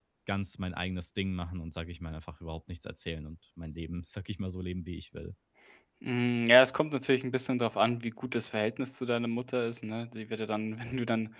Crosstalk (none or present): none